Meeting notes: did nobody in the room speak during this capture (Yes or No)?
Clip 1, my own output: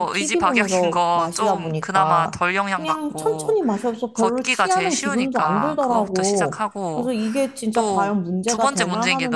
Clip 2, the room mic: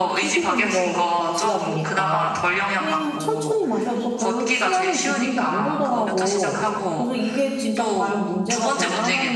No